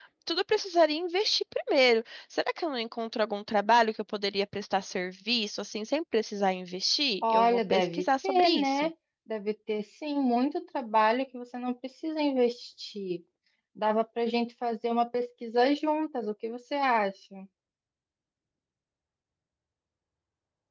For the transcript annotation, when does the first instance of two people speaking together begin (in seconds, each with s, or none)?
7.2 s